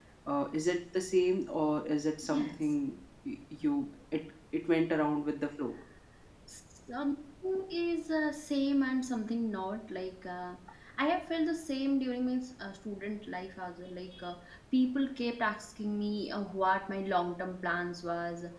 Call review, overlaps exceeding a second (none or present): none